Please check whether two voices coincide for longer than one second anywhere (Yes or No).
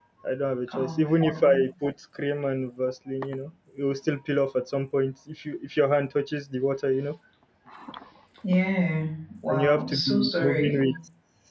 Yes